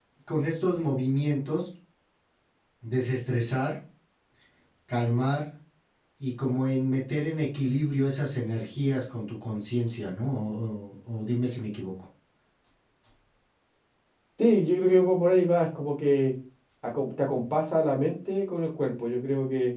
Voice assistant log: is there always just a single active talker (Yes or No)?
Yes